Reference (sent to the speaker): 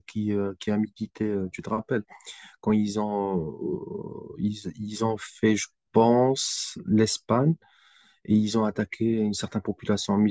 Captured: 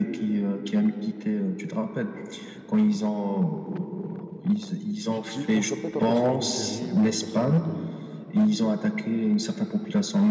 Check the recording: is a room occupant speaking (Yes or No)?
Yes